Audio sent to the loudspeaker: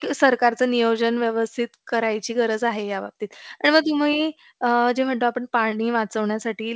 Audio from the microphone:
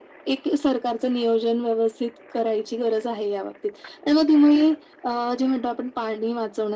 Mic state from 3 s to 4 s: echo only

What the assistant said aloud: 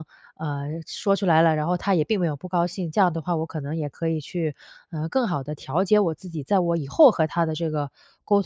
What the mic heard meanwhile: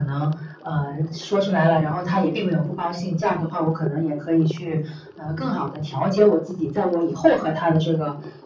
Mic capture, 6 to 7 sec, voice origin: echo only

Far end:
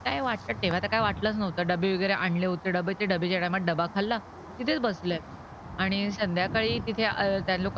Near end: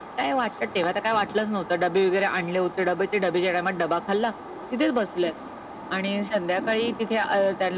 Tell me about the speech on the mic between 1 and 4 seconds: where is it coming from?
echo only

